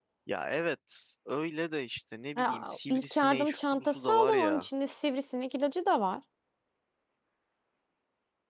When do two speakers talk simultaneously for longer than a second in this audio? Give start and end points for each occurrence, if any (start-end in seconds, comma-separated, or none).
2.4-4.7